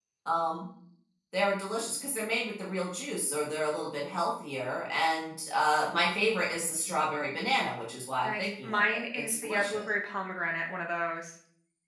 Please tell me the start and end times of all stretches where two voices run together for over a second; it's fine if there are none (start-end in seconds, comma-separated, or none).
8.2-9.9